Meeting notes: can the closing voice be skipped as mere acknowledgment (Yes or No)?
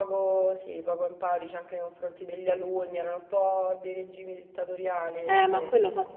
No